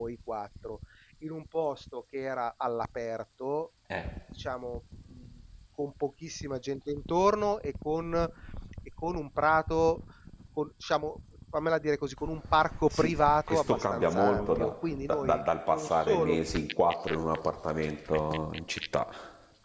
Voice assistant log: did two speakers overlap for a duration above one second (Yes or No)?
Yes